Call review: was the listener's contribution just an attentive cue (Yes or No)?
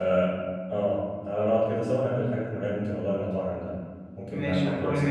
No